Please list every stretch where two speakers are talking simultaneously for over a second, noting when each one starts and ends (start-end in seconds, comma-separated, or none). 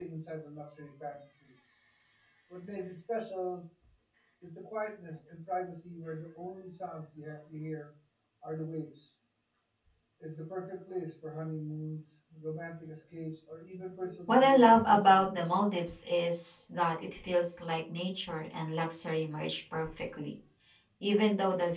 14.3-15.6